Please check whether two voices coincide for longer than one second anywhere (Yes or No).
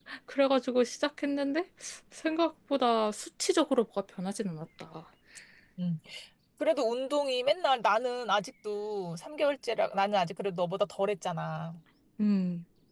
No